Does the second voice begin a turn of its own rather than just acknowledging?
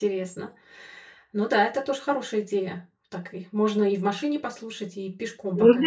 Yes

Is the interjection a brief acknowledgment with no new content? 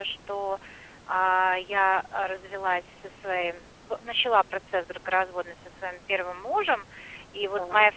Yes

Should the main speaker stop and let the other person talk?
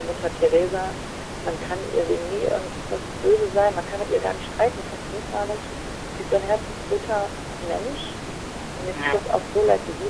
No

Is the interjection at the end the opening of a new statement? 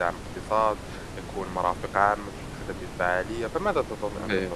Yes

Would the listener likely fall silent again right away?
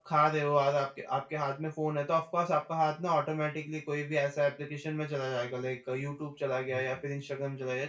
Yes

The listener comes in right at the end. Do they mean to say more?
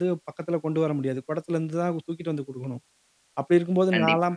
No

